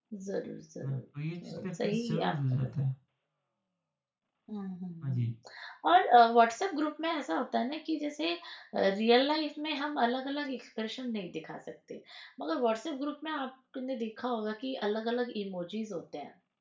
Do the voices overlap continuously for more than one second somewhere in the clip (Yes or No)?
Yes